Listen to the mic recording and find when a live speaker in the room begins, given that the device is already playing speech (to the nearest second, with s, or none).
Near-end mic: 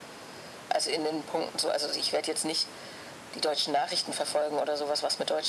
none